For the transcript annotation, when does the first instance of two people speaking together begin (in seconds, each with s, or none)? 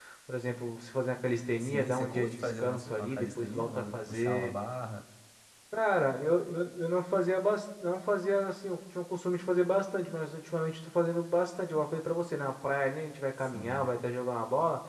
1.6 s